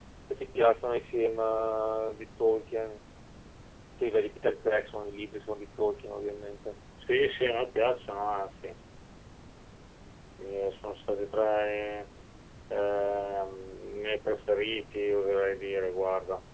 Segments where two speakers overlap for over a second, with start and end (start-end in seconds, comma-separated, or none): none